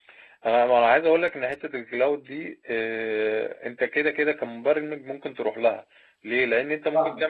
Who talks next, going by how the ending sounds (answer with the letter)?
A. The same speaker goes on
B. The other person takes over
A